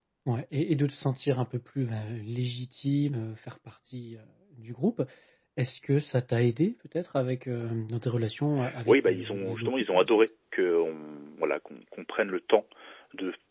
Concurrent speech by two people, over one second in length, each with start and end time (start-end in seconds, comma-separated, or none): 8.8-10.1